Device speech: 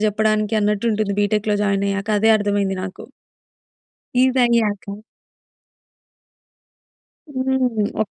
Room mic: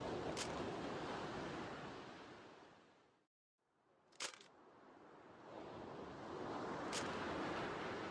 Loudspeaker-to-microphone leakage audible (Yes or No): No